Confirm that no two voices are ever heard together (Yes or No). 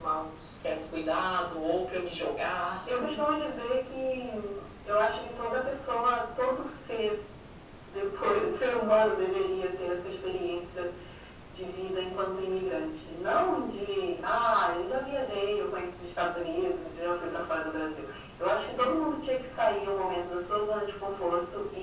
Yes